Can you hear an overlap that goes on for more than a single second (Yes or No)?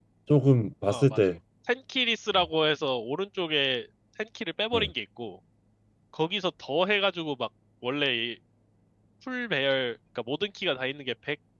No